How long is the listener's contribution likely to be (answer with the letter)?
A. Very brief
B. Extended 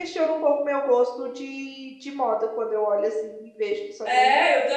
B